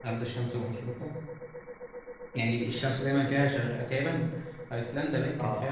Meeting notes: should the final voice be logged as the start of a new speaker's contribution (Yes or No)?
No